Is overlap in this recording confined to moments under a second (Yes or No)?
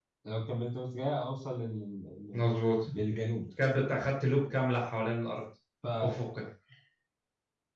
Yes